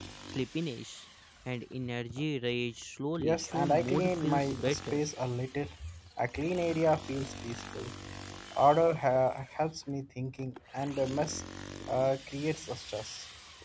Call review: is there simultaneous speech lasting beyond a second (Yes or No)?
Yes